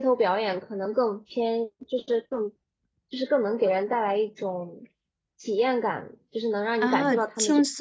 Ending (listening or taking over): taking over